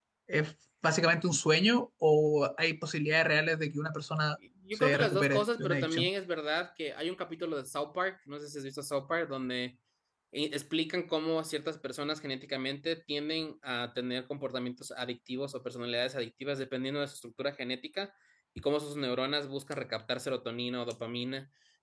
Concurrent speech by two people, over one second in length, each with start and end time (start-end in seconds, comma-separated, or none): 4.7-6.1